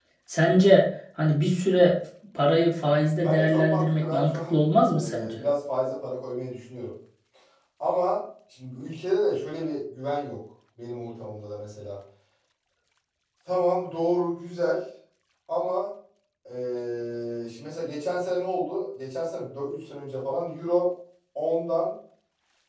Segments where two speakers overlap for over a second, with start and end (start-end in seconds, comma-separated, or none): 3.2-4.6